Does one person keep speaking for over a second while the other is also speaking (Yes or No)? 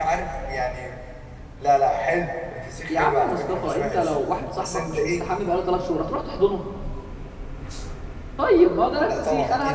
Yes